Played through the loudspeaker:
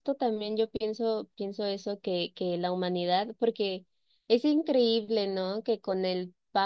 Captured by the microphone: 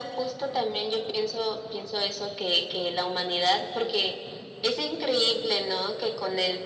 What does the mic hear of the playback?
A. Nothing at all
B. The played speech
B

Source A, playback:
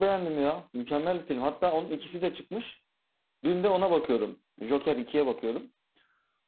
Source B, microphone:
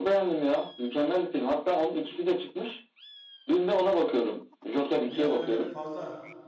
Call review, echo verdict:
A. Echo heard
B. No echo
A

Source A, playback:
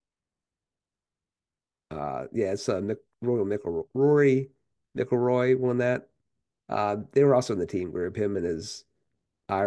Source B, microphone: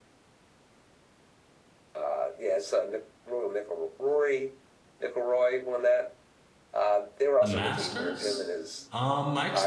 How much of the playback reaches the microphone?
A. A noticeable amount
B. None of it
A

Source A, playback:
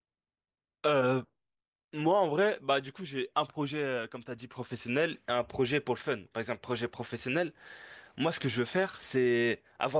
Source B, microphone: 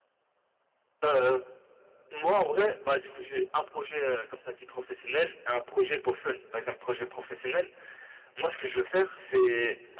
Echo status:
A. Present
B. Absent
A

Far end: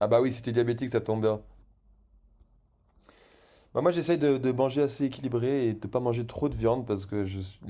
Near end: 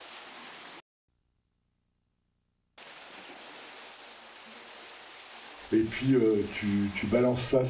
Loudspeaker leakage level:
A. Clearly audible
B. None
B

